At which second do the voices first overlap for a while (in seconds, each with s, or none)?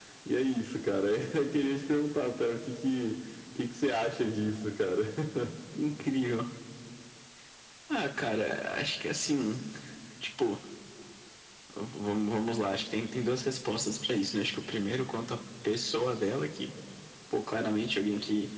none